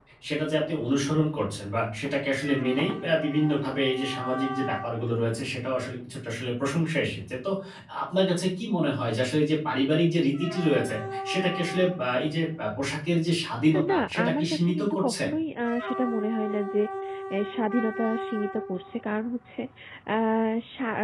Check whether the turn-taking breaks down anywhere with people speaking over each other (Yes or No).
Yes